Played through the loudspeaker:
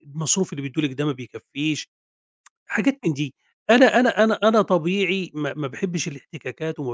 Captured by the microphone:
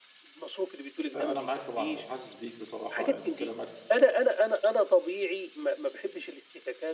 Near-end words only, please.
أ أنا معاك طبعًا وحاسس بيك بصراحة، يعني كلامك

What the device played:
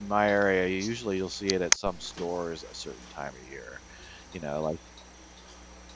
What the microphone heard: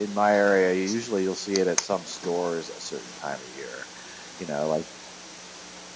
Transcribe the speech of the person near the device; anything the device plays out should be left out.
none

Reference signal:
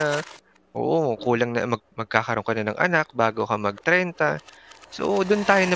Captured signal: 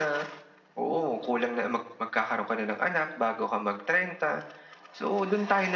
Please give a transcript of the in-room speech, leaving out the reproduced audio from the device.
none

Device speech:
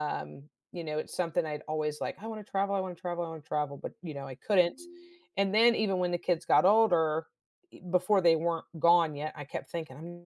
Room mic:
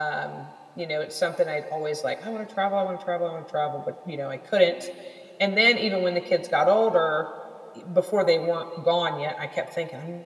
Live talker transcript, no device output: none

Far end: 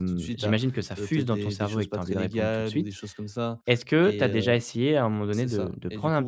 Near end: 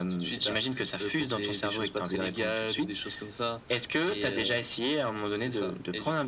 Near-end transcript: none

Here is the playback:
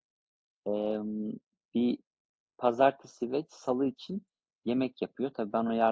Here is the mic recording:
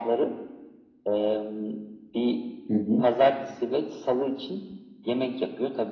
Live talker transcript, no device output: Hı hı.

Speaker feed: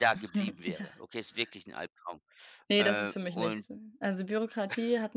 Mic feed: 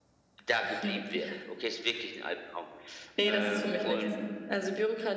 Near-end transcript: ja,

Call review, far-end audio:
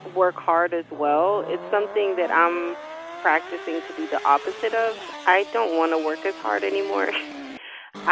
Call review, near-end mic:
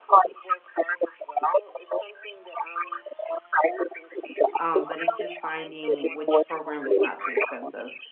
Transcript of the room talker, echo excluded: um, but it's just finding which program is not too expensive.

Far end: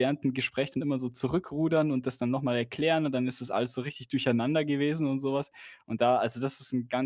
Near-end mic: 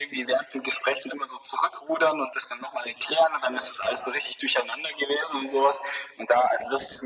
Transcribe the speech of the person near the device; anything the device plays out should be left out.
none

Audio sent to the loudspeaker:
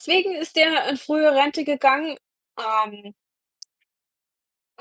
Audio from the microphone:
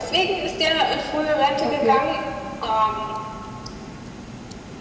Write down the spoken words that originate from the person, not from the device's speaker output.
okay.

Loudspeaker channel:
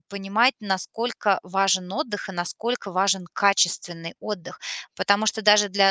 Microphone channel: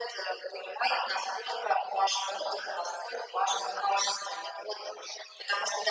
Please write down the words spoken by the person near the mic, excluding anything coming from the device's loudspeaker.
none

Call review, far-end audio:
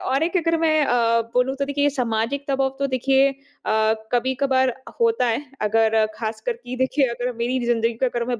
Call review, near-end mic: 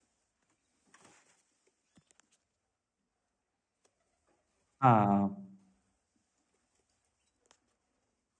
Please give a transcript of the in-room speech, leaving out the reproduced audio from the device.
हाँ

